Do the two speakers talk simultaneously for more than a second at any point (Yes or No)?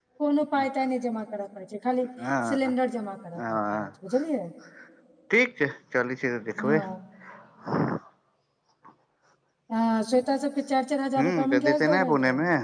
Yes